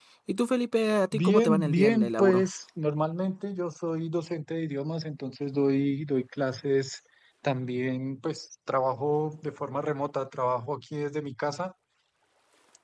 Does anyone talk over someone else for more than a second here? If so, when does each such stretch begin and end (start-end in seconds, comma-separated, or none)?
1.1-2.5